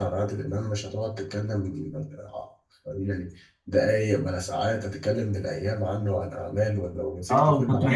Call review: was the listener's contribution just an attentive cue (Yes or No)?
No